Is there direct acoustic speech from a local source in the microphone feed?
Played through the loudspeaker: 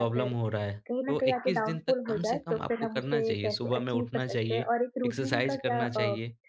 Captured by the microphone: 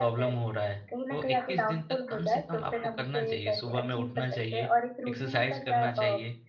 No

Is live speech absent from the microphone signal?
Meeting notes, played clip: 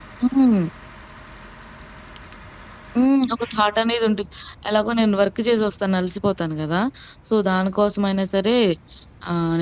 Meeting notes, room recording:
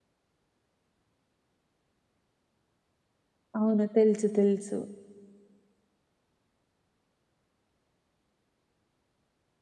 No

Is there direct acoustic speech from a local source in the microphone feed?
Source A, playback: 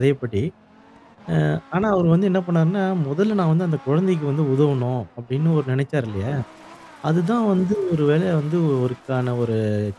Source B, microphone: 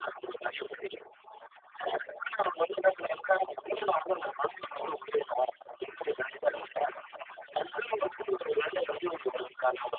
No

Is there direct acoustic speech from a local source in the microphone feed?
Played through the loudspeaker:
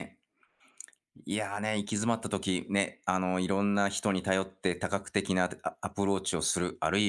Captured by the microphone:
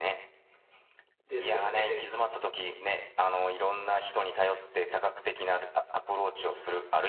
Yes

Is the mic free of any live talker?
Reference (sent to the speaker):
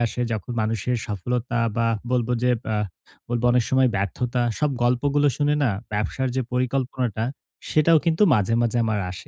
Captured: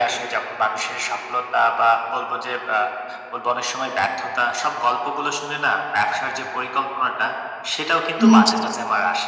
No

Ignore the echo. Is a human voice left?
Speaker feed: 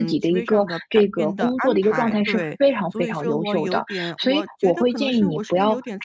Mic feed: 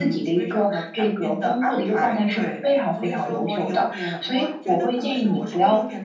No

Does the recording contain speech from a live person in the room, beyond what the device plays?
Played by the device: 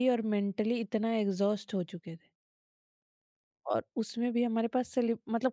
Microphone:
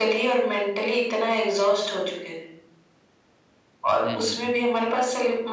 Yes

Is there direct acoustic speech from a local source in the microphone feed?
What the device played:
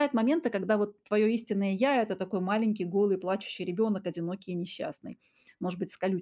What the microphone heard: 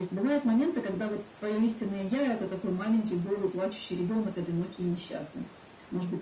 No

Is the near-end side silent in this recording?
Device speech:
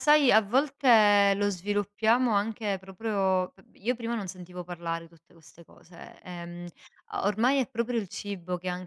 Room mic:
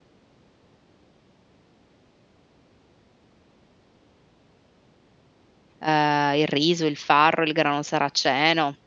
No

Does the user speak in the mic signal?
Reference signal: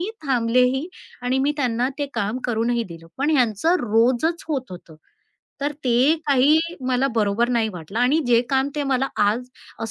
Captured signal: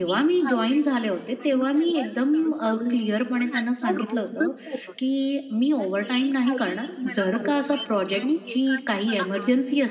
Yes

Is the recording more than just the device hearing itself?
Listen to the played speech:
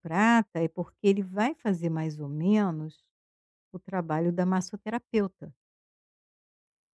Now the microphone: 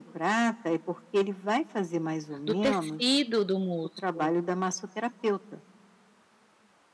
Yes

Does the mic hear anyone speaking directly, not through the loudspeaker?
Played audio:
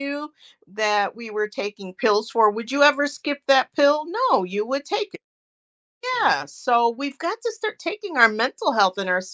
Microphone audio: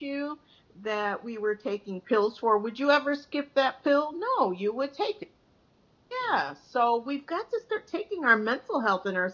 No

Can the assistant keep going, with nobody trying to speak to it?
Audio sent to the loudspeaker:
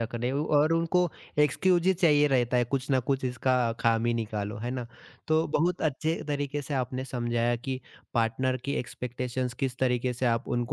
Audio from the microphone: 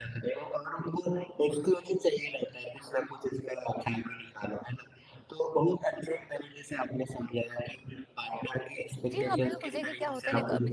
No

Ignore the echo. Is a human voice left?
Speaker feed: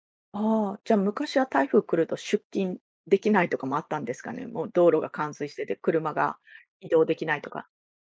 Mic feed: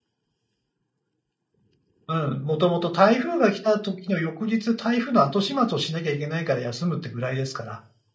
Yes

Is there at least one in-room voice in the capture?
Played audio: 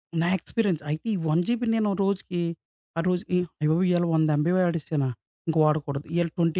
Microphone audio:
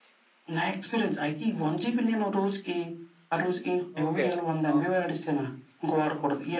Yes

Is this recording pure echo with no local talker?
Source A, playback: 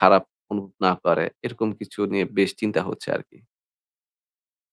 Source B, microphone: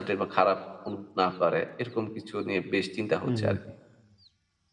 No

